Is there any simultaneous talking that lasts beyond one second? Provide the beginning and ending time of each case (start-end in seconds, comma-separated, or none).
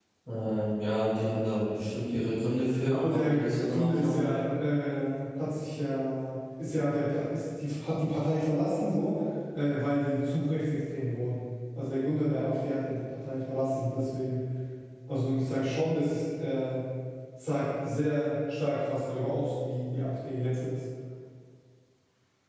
2.9-4.2